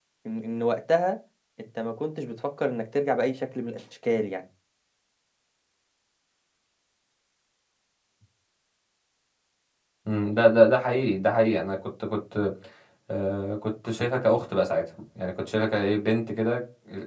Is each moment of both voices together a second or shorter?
Yes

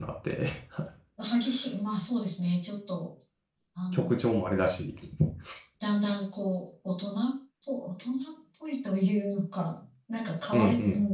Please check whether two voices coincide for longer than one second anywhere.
No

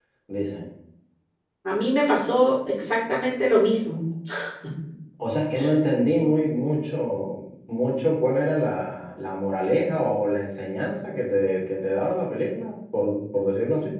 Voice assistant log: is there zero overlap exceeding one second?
Yes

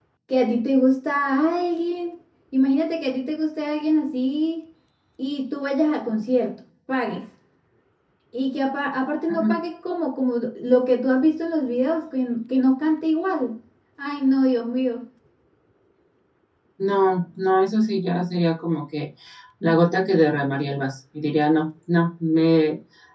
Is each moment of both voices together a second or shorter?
Yes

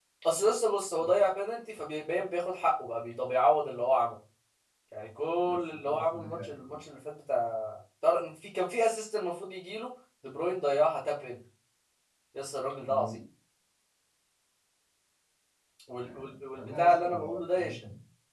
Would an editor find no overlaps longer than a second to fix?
No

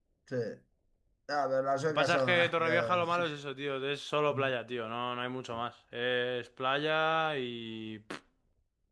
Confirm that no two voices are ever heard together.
No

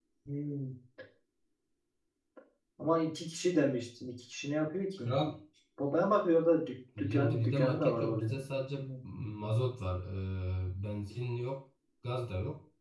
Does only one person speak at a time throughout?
No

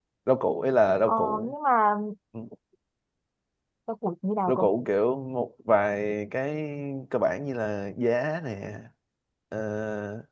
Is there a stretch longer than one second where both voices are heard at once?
No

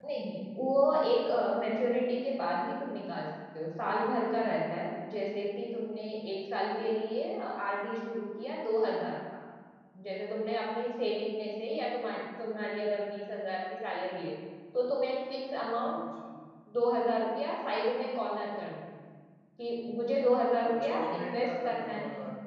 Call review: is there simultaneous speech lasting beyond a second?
Yes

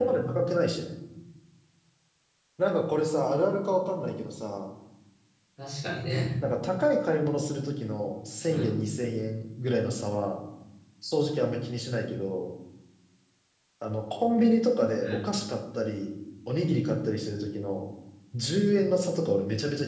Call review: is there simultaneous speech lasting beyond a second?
No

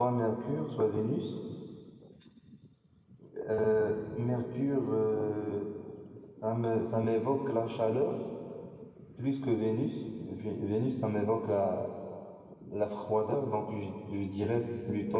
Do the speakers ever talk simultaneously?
No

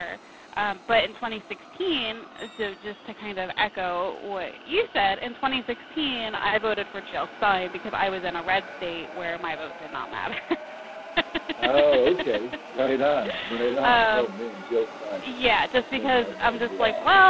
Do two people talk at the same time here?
Yes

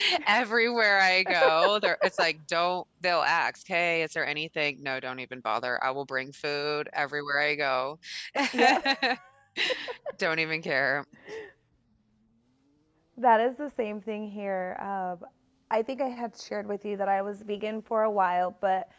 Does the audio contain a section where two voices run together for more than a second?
No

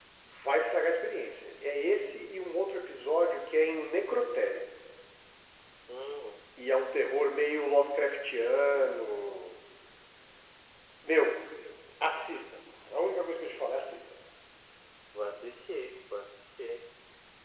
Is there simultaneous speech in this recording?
No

